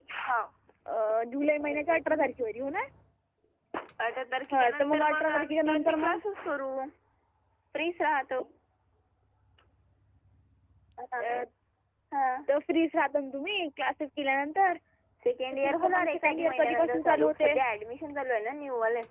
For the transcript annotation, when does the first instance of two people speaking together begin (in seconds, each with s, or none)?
4.5 s